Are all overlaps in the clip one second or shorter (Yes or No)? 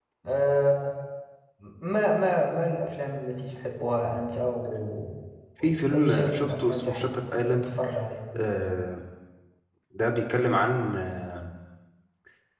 No